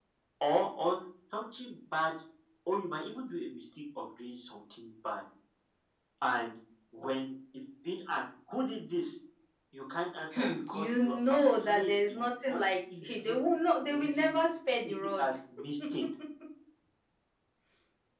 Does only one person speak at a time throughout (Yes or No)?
No